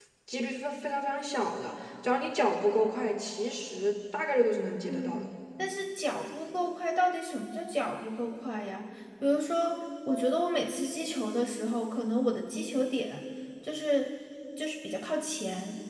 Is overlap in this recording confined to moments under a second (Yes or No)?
Yes